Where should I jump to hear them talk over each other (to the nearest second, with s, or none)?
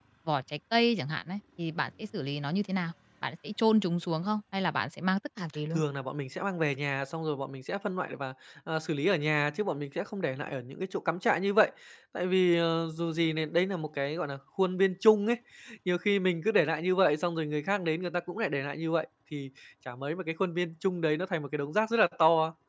none